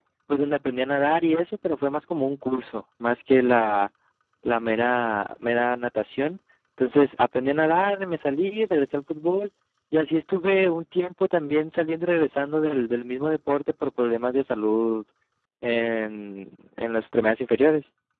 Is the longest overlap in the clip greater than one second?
No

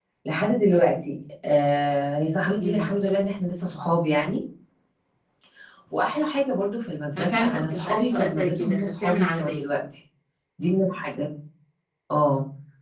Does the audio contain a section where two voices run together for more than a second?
Yes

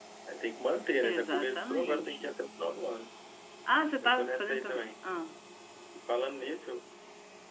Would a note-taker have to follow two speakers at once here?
Yes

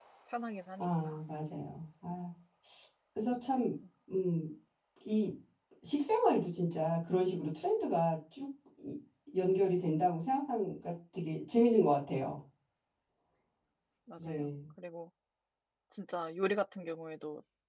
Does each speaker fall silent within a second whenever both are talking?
Yes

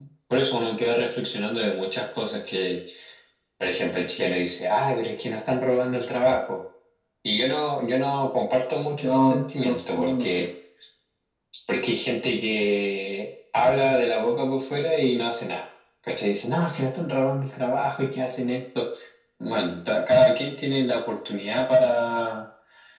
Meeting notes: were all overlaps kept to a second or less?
No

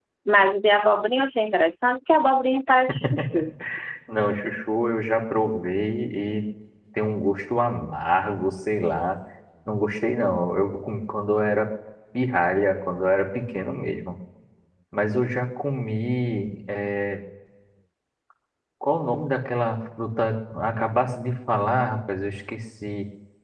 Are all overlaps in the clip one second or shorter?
Yes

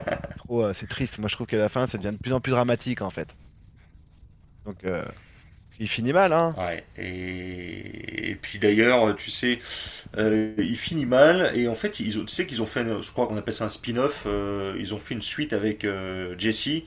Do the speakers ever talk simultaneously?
No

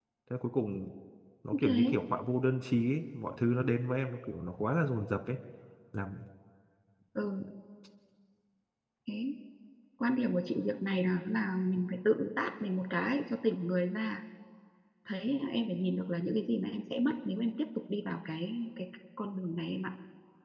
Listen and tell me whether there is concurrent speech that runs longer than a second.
No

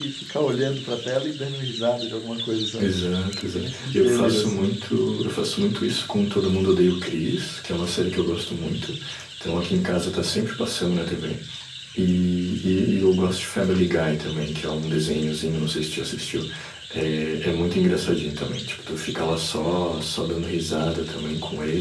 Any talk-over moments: Yes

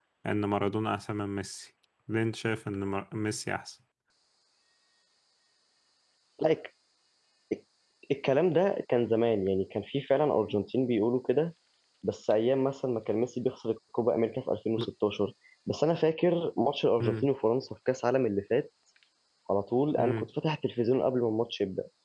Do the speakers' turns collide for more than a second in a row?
No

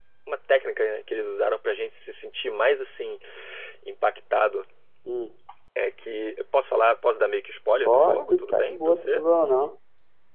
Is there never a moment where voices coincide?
No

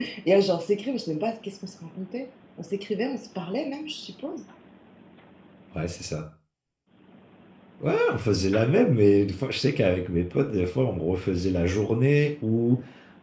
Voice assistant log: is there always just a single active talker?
Yes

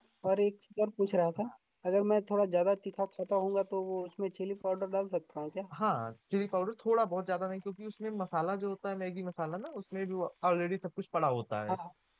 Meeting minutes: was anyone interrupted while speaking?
No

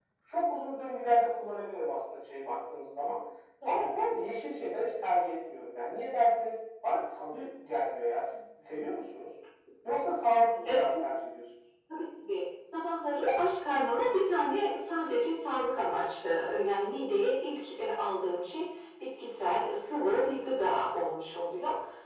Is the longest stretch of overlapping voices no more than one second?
Yes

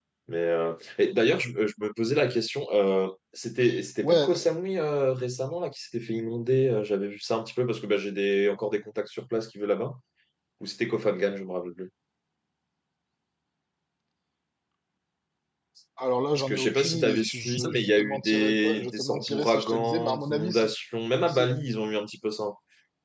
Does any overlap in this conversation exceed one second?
Yes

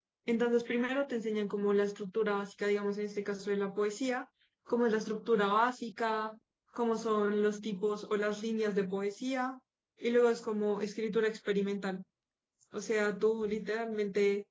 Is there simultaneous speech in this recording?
No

